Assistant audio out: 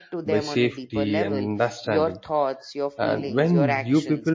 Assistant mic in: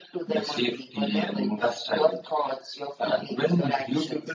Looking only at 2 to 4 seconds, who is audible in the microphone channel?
echo only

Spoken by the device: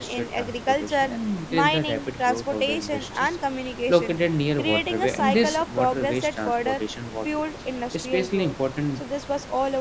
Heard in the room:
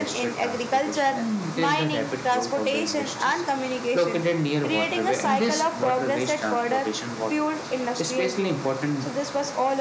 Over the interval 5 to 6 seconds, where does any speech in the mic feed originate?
echo only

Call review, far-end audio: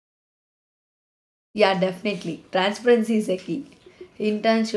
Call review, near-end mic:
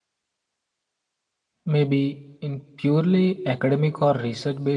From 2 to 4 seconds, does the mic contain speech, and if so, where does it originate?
user only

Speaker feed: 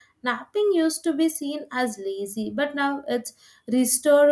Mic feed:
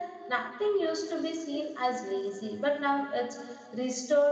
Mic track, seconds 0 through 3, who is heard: echo only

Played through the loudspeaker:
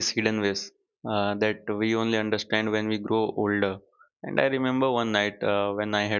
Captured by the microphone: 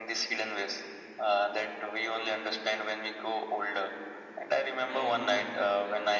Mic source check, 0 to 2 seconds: echo only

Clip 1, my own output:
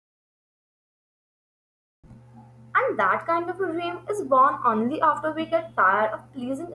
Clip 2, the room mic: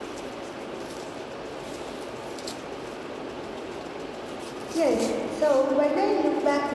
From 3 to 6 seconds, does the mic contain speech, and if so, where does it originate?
user only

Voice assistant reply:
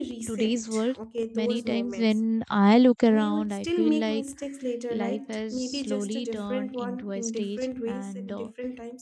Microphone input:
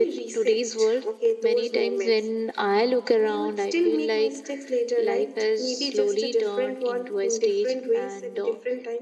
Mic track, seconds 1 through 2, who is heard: echo only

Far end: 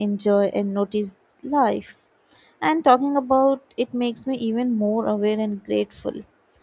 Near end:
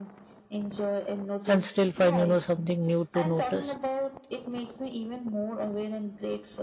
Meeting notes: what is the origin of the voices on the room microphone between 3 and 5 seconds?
both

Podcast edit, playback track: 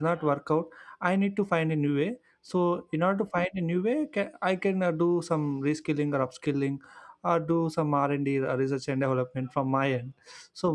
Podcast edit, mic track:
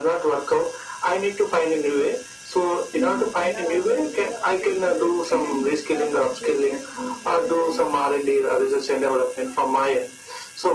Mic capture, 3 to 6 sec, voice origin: both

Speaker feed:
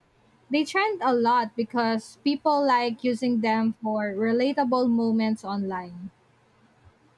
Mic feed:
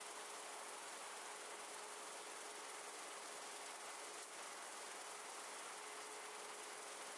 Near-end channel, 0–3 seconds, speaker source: neither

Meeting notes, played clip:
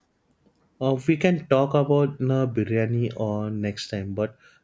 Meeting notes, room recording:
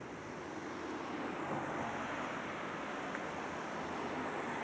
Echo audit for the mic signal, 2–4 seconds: neither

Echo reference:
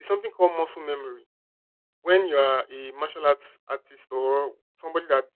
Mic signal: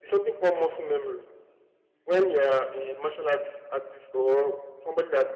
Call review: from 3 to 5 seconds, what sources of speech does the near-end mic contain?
echo only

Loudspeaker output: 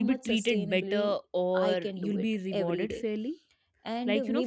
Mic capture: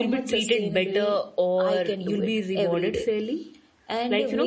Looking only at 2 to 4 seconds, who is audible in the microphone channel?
echo only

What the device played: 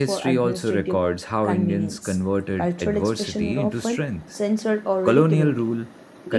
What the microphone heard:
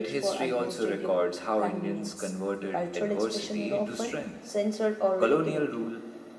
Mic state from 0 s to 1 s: echo only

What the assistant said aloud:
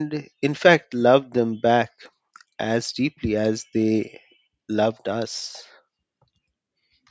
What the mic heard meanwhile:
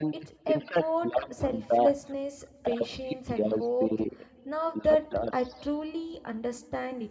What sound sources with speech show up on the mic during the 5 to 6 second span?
both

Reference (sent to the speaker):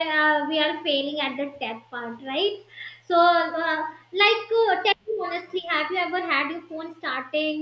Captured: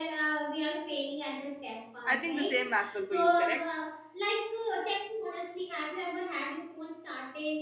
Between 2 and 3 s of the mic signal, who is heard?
both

